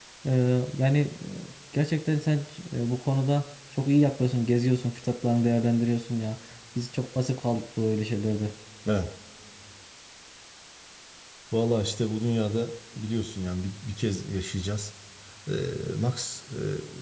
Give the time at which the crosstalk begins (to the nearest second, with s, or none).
none